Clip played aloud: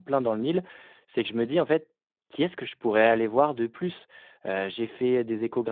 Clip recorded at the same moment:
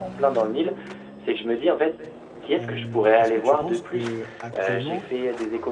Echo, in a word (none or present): present